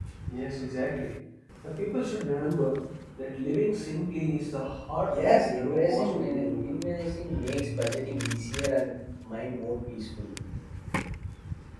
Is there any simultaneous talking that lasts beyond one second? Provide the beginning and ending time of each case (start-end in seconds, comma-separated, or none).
5.1-6.8